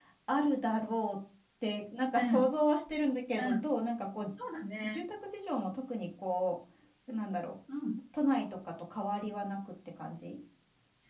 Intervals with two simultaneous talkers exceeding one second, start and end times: none

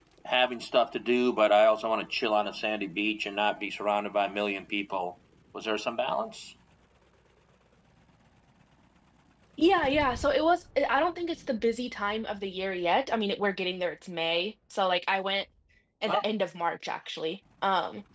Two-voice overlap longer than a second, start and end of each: none

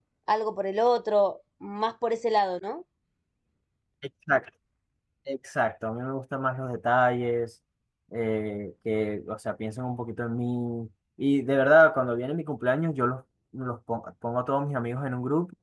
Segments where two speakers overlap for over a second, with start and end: none

